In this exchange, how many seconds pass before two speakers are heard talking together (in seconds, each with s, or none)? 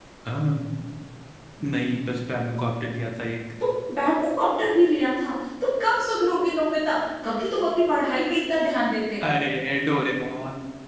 none